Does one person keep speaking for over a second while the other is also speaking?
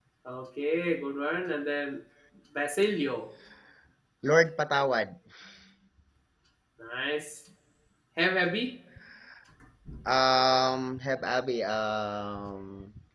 No

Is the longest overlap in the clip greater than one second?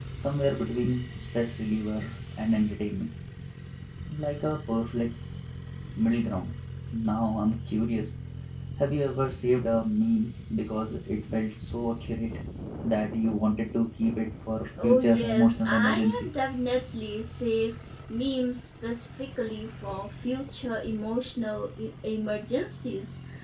Yes, from 14.8 s

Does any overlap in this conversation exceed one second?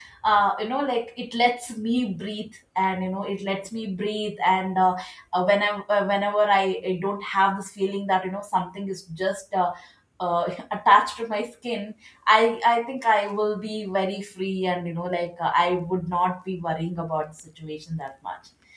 No

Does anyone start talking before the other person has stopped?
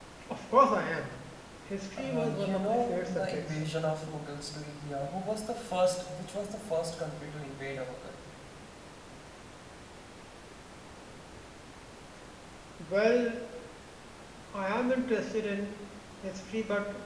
Yes, from 2.0 s

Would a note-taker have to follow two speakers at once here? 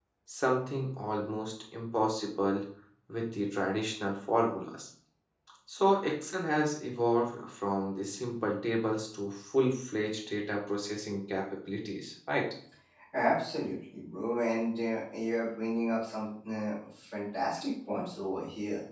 No

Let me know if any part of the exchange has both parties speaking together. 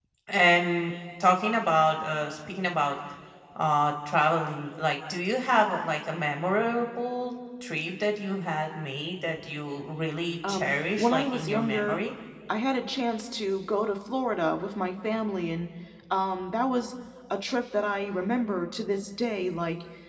Yes, from 10.4 s

